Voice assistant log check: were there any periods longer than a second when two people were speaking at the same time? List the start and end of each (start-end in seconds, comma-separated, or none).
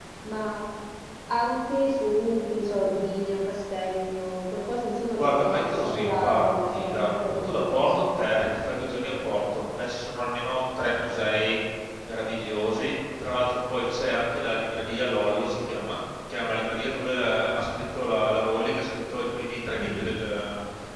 5.2-8.0